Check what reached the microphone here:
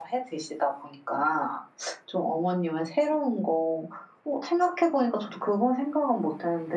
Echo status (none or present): none